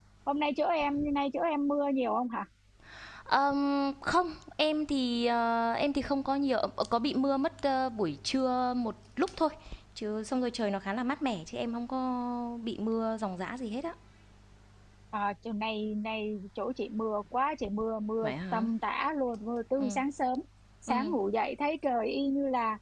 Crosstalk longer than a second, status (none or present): none